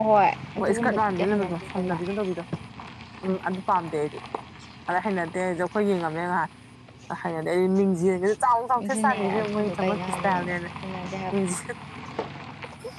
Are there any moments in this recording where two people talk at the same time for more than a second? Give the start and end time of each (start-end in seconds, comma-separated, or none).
0.6-2.0, 8.8-10.6